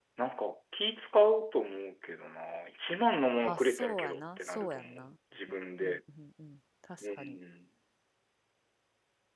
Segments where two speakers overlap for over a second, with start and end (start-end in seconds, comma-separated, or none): 3.4-5.1